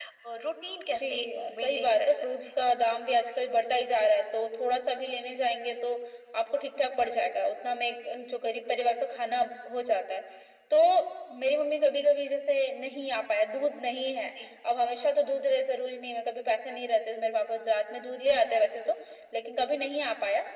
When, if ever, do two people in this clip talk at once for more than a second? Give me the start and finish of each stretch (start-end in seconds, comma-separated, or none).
1.0-2.2